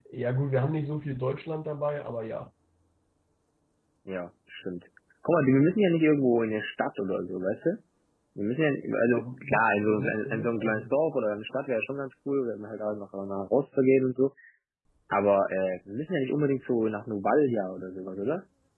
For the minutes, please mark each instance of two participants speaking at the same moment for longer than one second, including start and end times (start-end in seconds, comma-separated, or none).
9.1-10.9